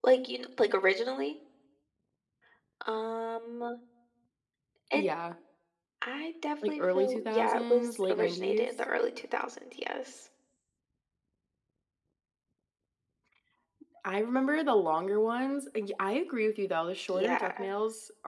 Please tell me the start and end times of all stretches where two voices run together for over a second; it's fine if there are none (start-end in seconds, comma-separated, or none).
6.7-8.7